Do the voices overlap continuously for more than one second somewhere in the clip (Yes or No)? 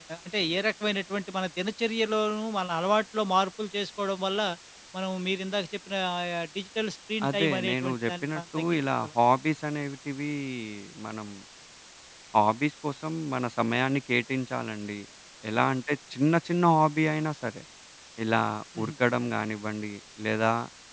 Yes